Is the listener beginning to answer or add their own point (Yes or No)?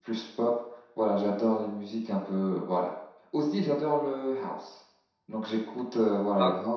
No